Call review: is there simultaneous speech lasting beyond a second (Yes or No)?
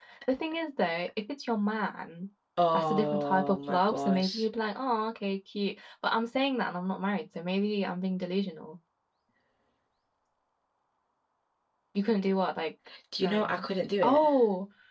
Yes